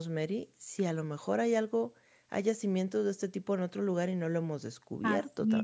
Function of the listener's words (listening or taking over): taking over